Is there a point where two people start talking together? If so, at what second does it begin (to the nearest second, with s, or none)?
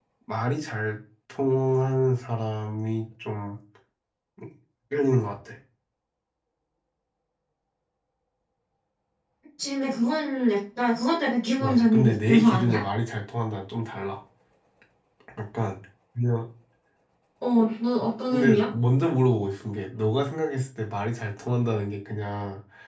12 s